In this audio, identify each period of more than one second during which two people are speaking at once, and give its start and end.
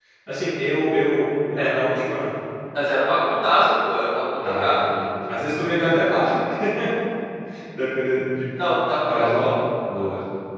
none

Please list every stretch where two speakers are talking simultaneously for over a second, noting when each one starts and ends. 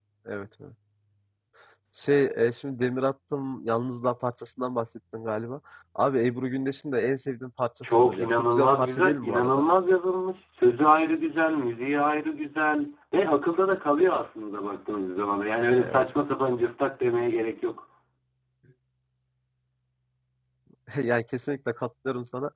7.9-9.6

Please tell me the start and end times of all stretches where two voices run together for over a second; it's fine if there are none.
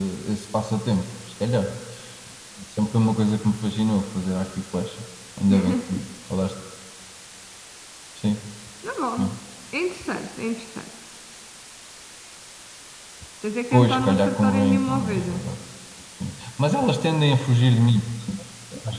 13.7-15.4

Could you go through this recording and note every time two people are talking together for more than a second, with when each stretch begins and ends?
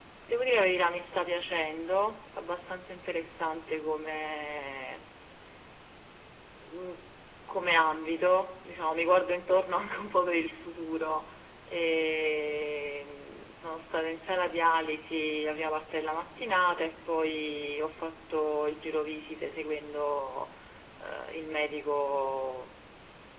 none

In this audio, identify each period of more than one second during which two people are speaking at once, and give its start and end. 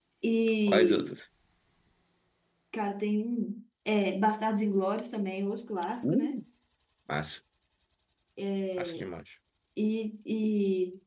none

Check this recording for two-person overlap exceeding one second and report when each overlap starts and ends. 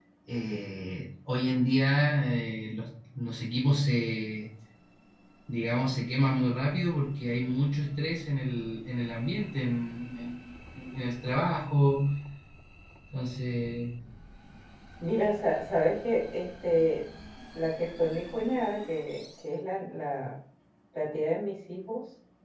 none

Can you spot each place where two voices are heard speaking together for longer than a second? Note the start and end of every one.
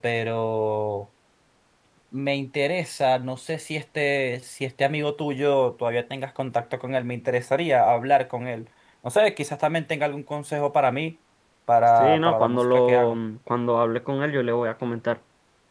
12.0-13.2

